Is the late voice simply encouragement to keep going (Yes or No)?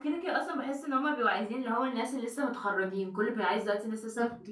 No